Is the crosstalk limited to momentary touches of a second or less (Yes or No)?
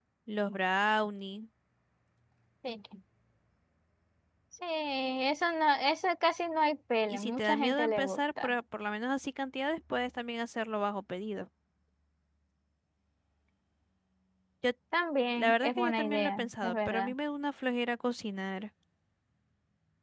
No